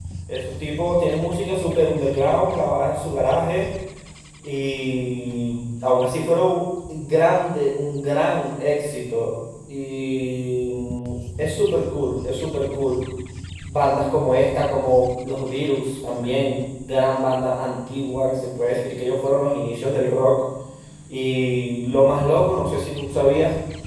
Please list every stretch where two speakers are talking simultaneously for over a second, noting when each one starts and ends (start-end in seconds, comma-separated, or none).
none